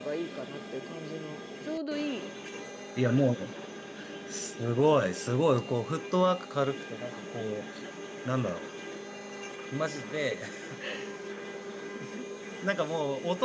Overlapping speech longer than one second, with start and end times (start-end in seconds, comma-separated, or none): none